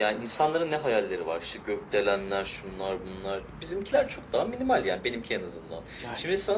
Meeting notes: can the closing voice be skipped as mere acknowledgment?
Yes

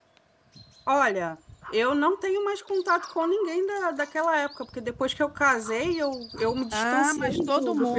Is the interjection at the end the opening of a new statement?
Yes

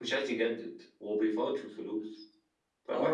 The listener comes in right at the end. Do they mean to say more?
Yes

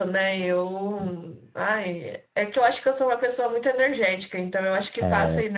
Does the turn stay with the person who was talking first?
No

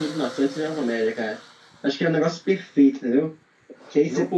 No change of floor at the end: Yes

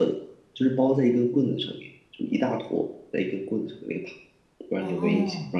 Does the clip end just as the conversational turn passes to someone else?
Yes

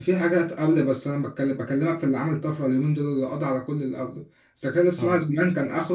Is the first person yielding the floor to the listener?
No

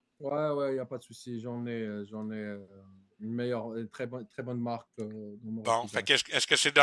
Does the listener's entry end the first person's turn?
Yes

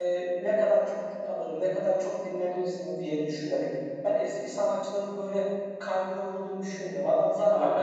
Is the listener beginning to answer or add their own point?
No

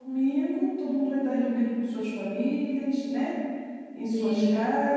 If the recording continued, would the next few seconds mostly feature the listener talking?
No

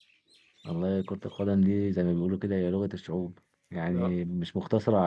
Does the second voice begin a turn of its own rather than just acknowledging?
No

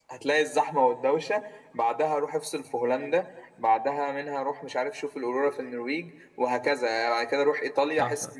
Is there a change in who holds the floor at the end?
Yes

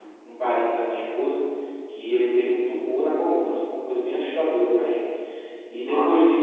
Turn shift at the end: No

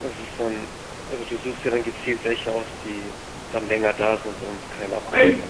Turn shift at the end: Yes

